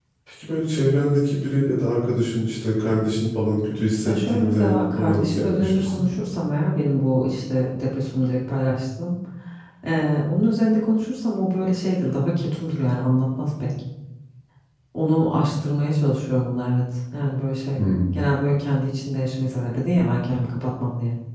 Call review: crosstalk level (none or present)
present